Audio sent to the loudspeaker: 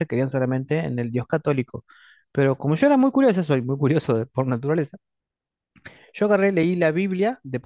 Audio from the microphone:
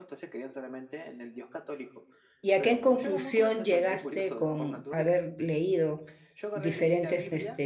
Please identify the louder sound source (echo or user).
user